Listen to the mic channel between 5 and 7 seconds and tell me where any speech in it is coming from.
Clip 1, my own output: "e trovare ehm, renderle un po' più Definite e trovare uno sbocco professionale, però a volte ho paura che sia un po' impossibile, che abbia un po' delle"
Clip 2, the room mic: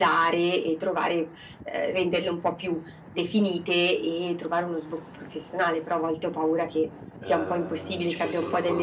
echo only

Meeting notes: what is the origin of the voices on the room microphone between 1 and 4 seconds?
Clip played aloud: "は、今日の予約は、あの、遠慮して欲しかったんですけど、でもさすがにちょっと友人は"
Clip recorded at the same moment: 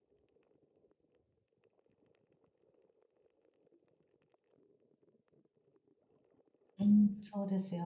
neither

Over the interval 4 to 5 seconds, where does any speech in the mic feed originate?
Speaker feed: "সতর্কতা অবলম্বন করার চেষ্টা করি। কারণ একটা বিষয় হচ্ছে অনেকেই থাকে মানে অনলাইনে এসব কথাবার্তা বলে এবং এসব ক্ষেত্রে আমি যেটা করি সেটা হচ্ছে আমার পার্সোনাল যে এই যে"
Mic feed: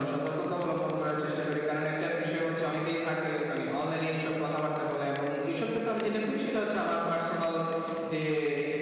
echo only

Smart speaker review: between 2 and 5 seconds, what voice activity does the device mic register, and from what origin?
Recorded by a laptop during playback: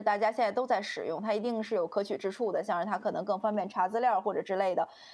user only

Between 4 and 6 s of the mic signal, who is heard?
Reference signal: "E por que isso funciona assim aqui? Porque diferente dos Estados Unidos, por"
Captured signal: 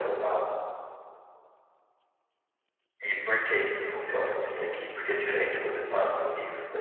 echo only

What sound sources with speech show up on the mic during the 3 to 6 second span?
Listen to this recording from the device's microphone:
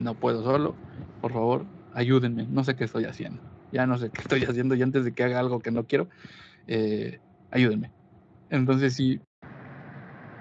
user only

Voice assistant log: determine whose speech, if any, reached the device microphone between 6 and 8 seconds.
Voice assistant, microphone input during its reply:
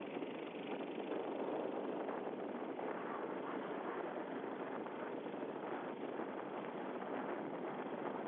neither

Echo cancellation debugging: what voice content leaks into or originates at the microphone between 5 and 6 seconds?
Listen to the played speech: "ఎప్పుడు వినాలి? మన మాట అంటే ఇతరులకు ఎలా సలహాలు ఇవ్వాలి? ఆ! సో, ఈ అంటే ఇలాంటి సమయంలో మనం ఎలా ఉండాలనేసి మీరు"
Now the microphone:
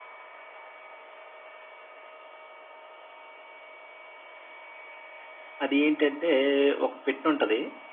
user only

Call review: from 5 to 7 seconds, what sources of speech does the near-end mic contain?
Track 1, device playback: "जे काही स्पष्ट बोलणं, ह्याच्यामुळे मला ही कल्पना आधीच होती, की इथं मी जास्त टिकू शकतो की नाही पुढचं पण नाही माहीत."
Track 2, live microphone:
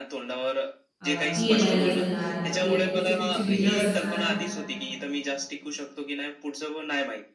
echo only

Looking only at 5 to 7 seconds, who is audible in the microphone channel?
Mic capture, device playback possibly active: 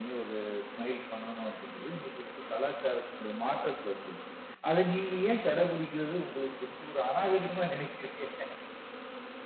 echo only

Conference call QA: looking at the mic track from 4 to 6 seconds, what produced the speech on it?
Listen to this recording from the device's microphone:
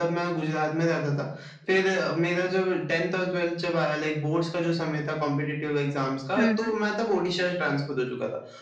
echo only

